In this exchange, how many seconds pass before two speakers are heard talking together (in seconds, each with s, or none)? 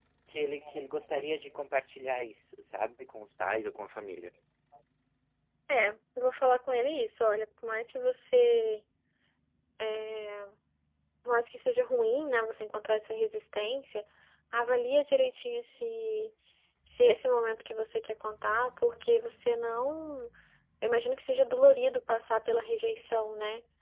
none